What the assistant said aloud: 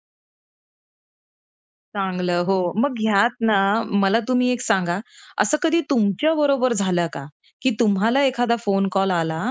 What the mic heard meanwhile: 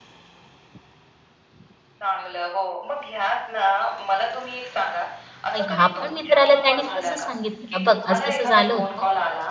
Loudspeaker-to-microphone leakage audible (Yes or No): Yes